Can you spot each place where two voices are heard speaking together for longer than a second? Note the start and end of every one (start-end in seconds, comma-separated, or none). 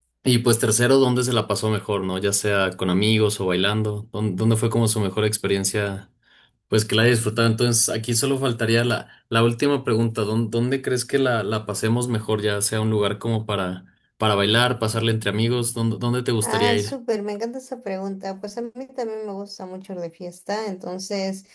none